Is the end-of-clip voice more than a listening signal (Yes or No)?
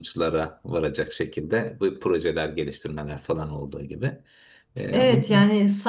Yes